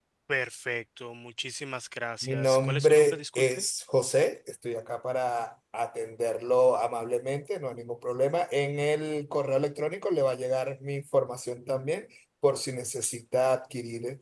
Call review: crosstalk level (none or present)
present